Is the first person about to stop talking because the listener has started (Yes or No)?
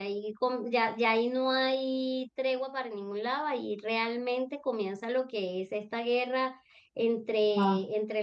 No